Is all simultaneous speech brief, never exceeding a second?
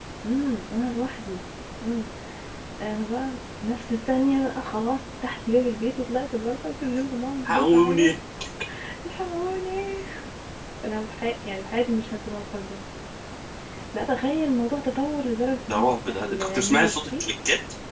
No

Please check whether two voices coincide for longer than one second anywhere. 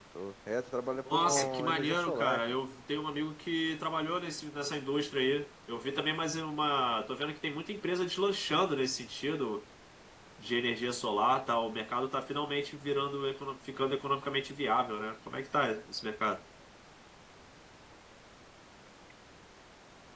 Yes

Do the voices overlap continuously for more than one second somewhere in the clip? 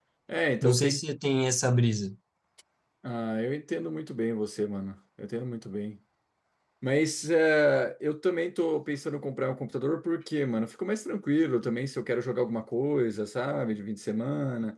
No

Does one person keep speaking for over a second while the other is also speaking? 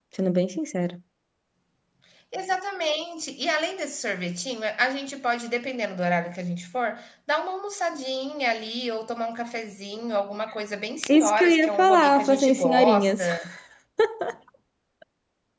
Yes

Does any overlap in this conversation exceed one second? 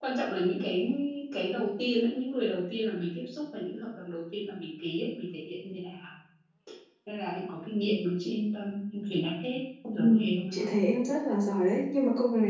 No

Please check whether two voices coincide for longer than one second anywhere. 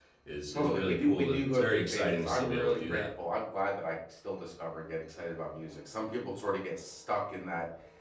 Yes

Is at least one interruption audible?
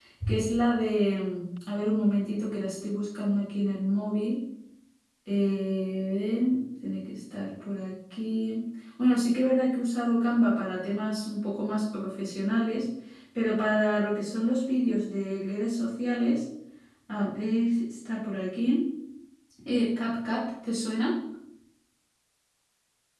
No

